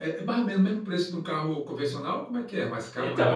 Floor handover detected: Yes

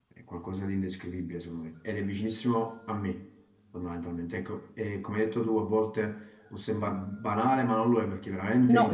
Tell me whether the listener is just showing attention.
Yes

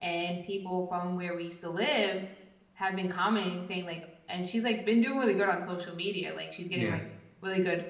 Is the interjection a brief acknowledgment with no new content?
Yes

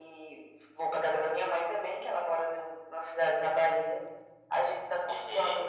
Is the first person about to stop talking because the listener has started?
No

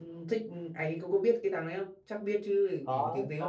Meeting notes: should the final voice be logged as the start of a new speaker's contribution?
Yes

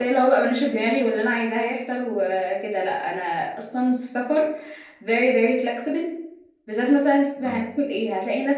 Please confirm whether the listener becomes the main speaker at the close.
No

